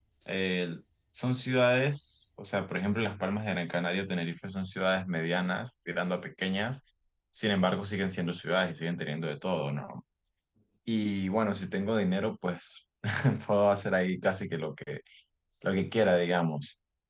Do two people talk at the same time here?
No

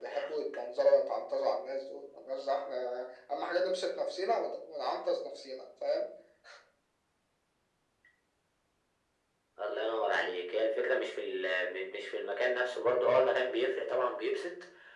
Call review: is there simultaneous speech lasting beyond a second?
No

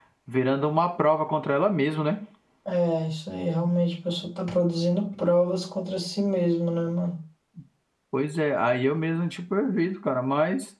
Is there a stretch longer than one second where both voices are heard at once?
No

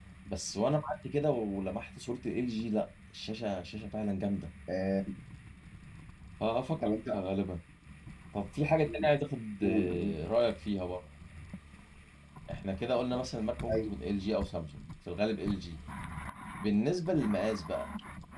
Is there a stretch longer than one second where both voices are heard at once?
No

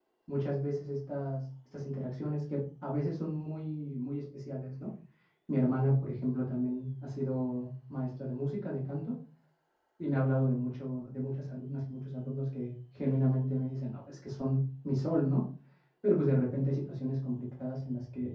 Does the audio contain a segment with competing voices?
No

